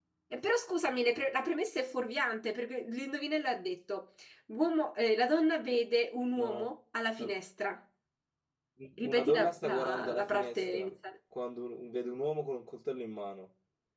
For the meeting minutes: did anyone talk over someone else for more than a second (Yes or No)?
Yes